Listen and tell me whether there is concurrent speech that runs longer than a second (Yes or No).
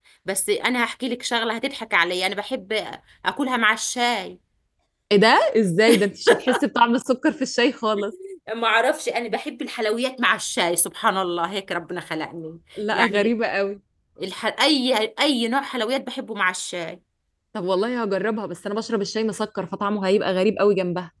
No